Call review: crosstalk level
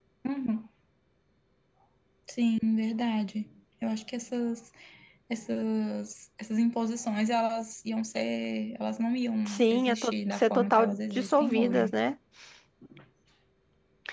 present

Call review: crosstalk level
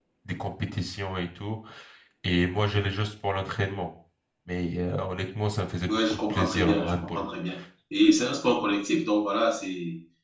present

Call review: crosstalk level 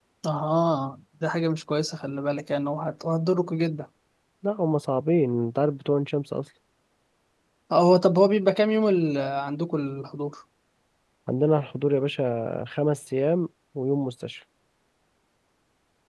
none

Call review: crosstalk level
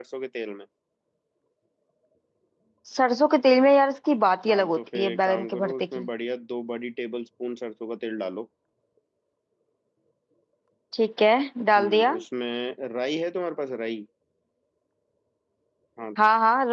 present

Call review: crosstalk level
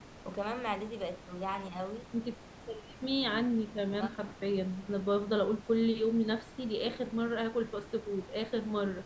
none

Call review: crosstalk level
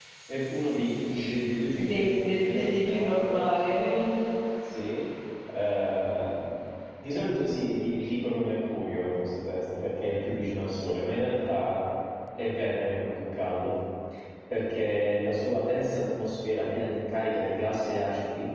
present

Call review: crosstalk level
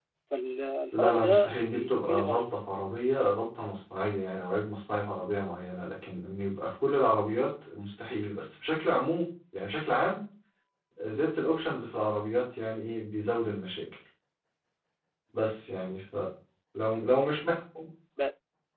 present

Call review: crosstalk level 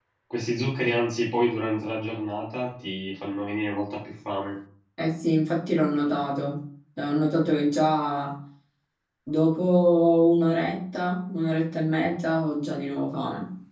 none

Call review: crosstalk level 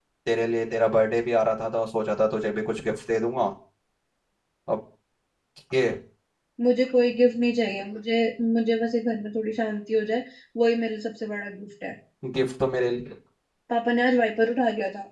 none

